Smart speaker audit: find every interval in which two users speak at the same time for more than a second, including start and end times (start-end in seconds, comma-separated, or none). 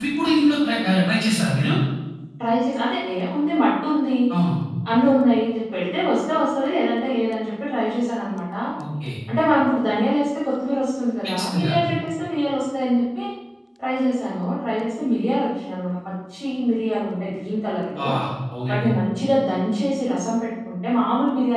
none